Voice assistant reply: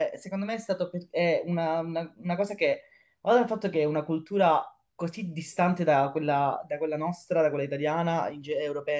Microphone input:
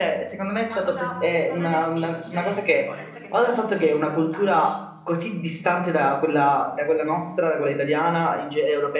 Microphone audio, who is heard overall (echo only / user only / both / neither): both